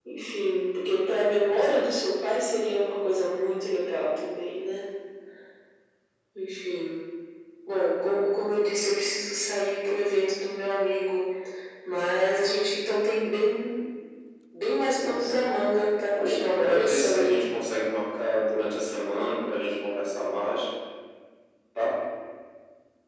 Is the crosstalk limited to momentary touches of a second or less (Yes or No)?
No